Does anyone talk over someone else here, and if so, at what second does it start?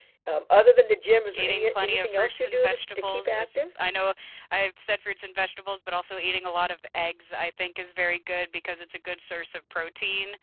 1 s

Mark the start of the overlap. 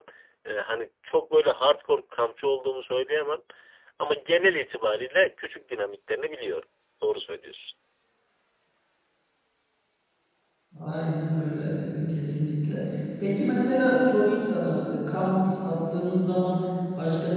none

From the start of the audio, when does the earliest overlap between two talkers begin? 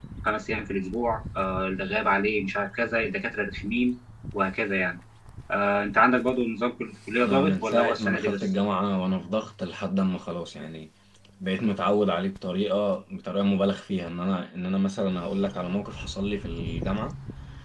7 s

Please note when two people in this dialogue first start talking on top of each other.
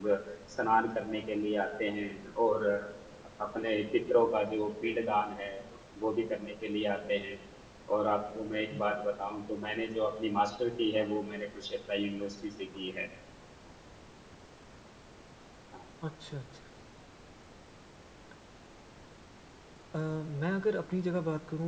none

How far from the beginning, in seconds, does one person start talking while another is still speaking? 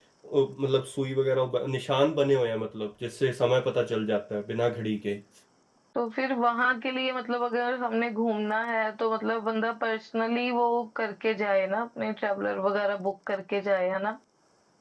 none

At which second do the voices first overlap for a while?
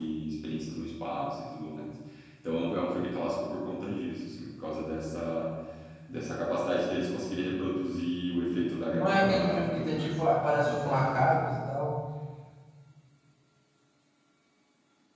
9 s

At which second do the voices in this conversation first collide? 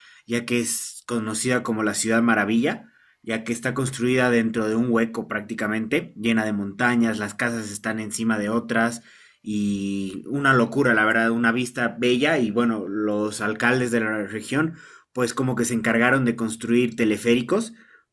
none

